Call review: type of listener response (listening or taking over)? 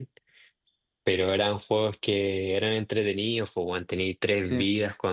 listening